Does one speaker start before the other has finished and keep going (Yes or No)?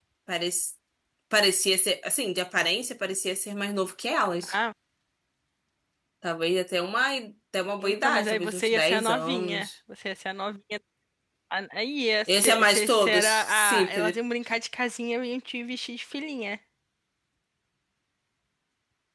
Yes